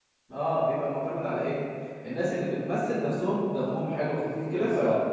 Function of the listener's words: taking over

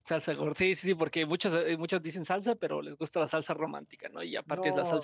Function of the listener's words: taking over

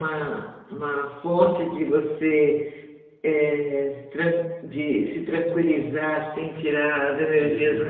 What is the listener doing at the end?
listening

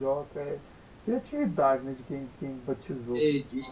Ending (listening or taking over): taking over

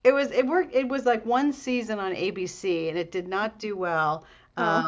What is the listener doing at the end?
listening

